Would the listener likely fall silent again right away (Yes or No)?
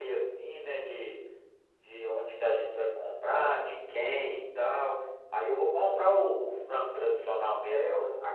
No